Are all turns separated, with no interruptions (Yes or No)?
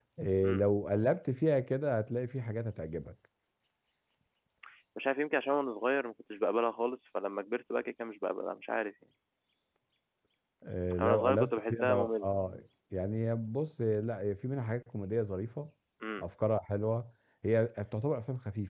No